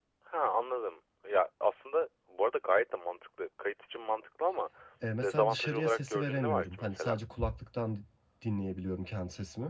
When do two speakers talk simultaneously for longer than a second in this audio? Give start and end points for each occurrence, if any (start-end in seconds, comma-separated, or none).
5.2-7.2